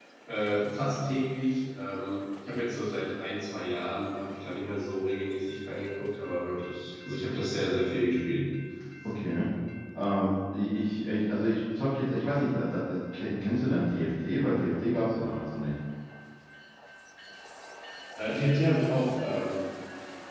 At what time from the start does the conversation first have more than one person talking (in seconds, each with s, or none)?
none